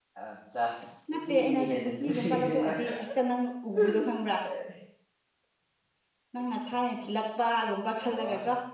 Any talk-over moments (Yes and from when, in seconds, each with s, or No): Yes, from 1.3 s